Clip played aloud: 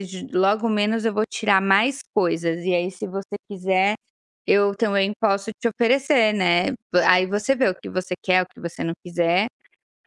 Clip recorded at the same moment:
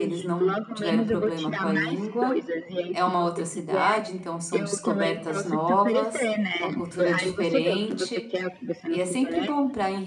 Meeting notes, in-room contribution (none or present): present